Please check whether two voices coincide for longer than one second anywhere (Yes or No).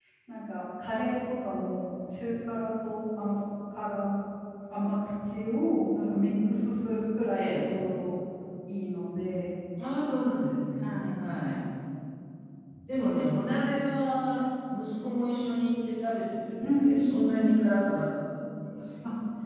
No